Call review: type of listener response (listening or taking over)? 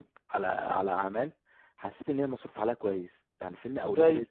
listening